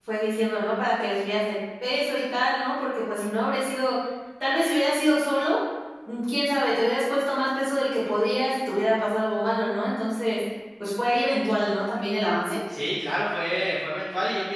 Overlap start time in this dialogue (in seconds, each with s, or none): none